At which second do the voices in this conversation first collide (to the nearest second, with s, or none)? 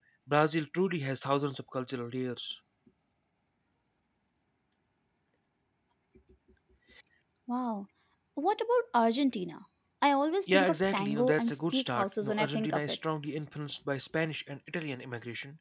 10 s